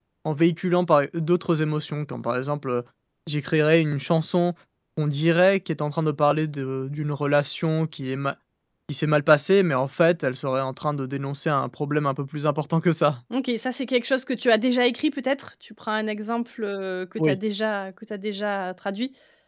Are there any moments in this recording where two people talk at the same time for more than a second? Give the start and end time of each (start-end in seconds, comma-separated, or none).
none